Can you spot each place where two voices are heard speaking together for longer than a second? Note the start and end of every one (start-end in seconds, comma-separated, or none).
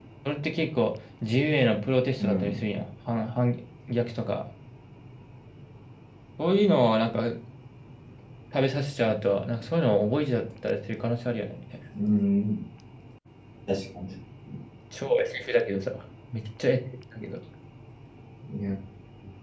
none